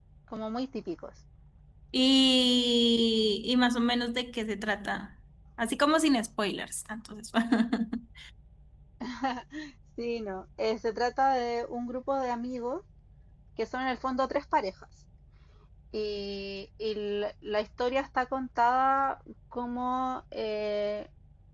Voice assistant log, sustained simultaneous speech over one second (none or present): none